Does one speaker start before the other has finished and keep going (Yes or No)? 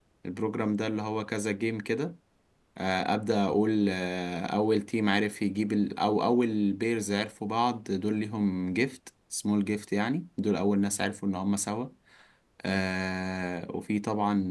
No